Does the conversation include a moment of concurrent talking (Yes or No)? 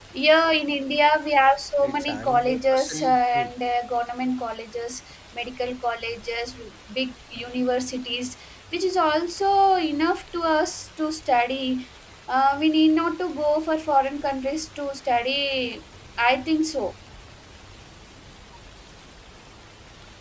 Yes